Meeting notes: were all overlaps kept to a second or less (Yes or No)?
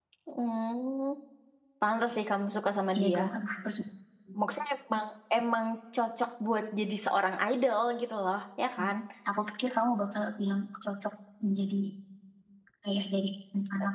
Yes